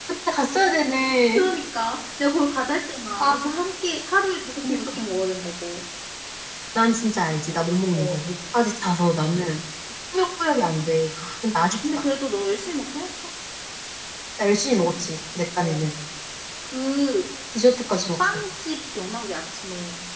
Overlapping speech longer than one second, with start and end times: none

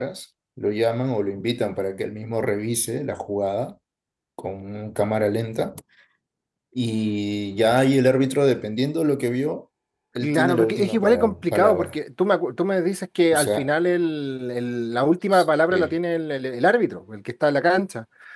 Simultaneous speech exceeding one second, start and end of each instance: 10.2-11.9

